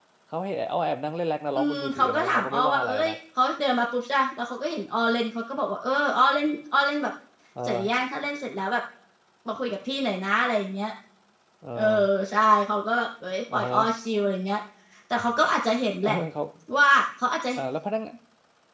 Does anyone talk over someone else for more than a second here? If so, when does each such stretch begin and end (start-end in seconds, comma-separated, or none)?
1.6-3.1